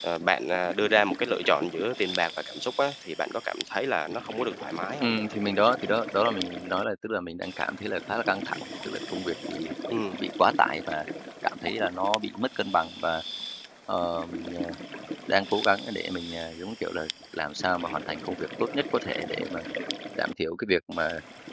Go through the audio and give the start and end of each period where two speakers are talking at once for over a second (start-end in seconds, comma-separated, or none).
none